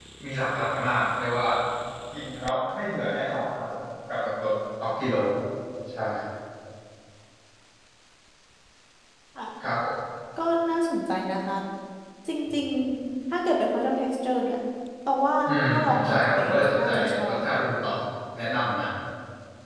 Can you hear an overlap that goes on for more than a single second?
Yes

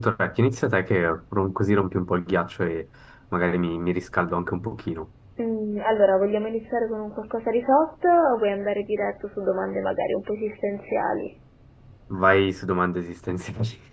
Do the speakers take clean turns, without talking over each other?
Yes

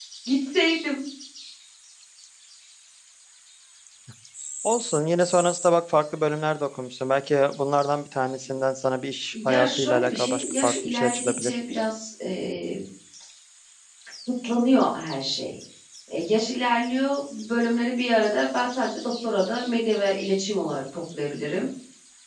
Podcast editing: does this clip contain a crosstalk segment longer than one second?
Yes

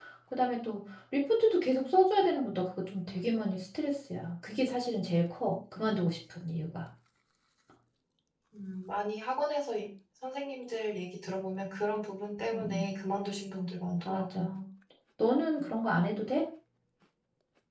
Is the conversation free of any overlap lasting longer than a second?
Yes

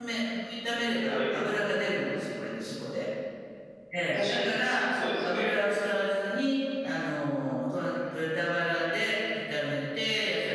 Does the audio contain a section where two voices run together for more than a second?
Yes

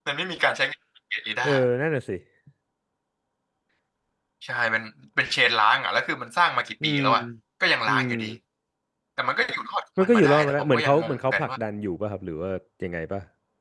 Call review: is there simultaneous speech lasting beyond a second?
Yes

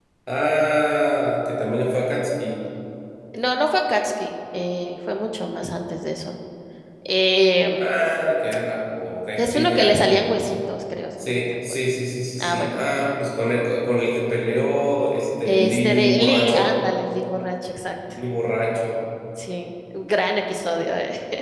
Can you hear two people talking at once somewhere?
Yes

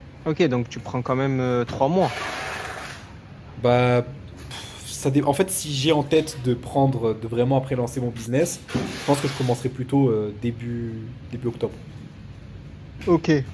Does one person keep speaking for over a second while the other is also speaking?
No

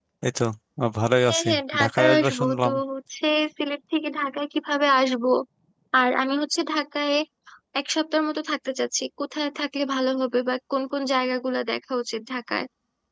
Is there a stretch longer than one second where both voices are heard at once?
Yes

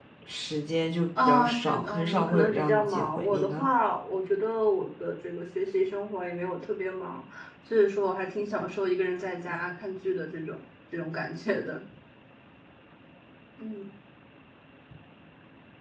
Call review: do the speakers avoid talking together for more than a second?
No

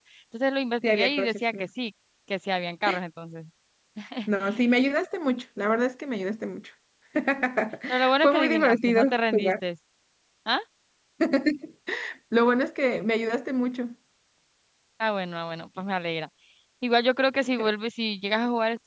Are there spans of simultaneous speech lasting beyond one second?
Yes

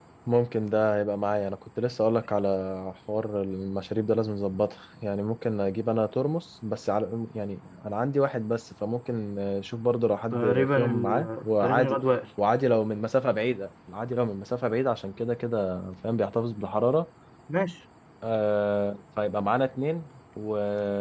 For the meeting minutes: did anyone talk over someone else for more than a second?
Yes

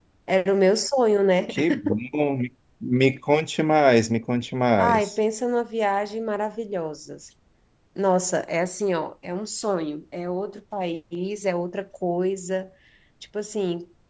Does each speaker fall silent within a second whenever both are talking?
Yes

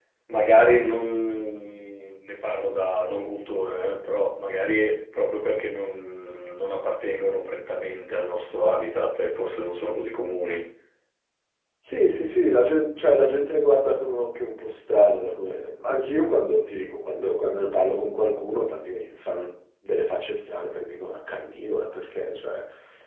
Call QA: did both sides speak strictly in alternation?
Yes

